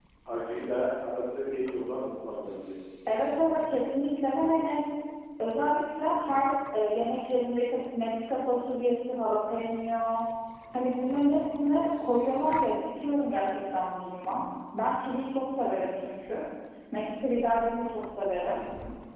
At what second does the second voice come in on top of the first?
none

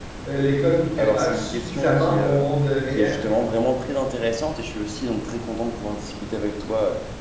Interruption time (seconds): 1.0 s

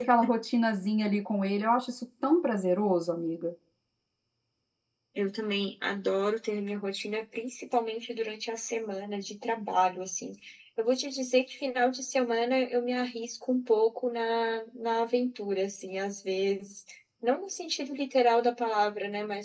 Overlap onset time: none

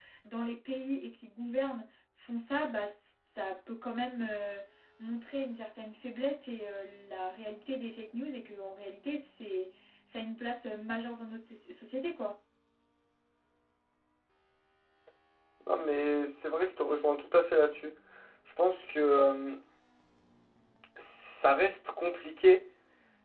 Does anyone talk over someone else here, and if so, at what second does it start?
none

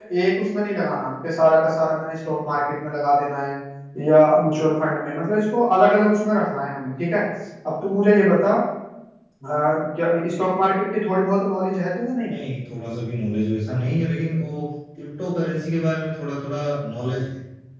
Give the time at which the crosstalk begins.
none

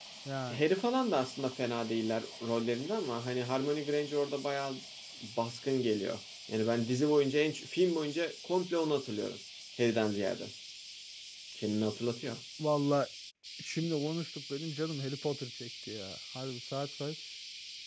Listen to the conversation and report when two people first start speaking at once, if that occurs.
none

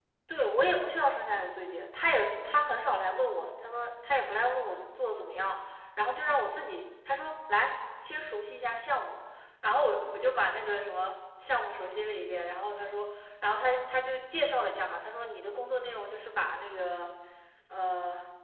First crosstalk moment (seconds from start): none

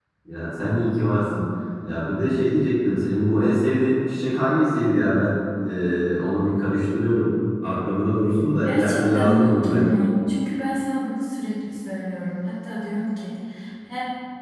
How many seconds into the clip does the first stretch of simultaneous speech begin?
8.5 s

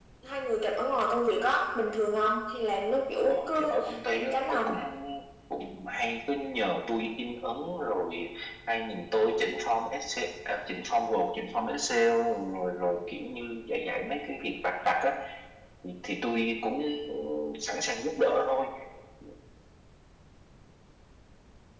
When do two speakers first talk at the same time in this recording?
3.3 s

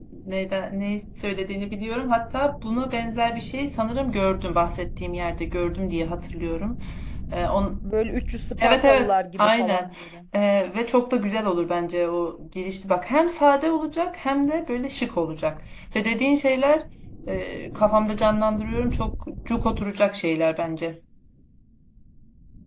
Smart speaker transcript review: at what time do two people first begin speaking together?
8.6 s

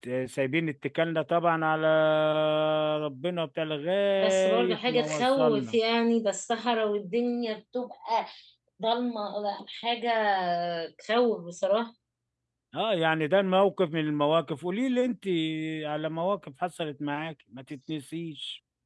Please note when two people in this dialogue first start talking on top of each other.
4.2 s

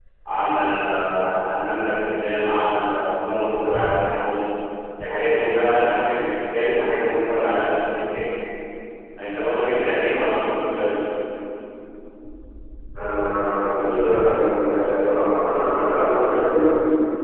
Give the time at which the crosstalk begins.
none

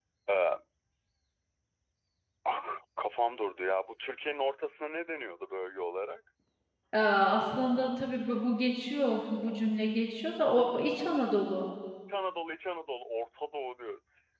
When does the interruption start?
none

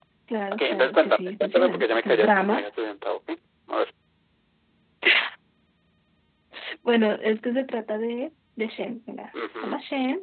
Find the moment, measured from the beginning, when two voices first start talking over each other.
0.5 s

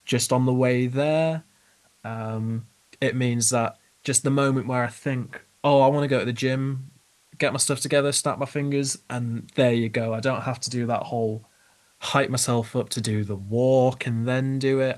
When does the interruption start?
none

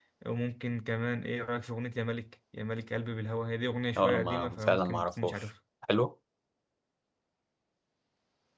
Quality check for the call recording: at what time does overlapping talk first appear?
4.0 s

